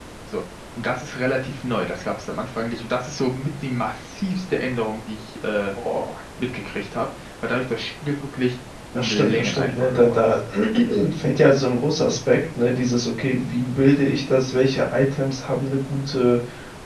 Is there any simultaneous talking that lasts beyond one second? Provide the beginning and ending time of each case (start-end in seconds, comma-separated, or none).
8.9-10.3